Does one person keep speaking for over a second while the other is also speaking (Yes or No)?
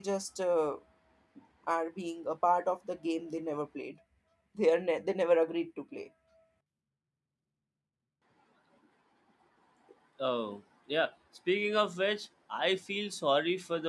No